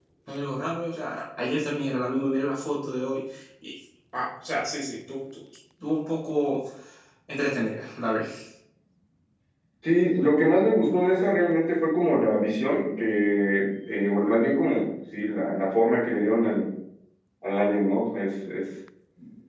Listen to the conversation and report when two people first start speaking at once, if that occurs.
none

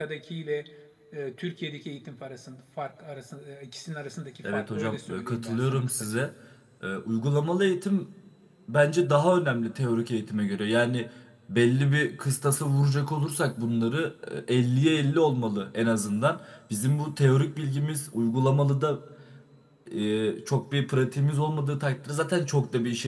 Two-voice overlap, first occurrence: 4.4 s

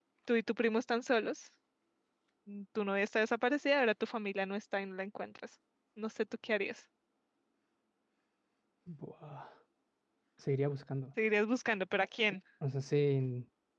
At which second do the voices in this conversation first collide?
none

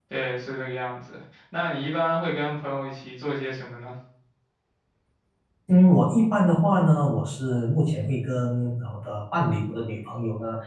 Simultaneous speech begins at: none

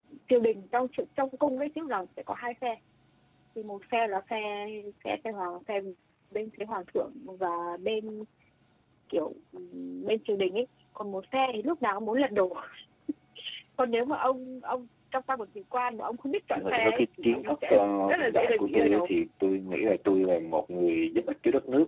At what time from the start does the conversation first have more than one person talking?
16.5 s

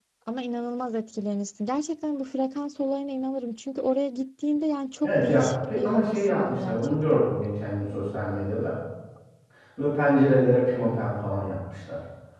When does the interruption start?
5.0 s

